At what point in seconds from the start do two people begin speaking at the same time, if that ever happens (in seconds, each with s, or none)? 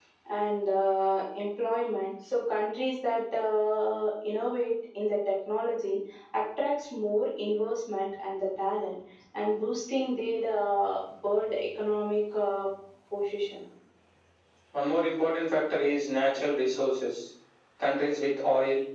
none